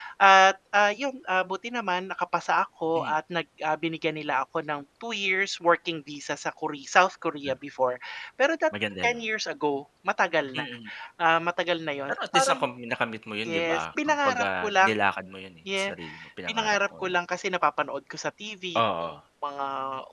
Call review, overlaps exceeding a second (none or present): present